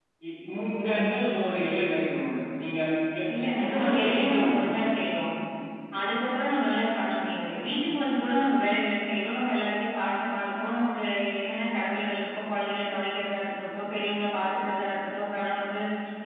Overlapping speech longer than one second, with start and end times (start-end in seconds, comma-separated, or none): 3.6-4.9